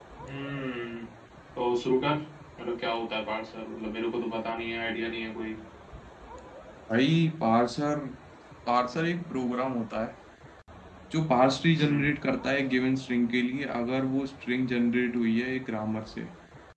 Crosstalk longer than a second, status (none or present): none